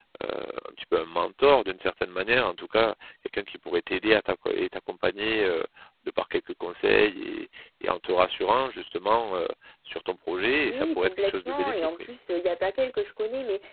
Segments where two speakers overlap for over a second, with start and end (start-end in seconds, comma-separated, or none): 10.6-11.9